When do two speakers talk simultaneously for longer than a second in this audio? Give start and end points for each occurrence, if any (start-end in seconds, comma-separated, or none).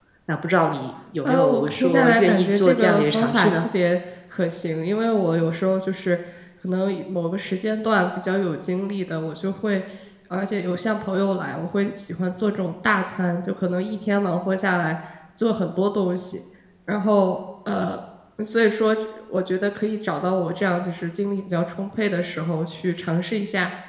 1.2-3.6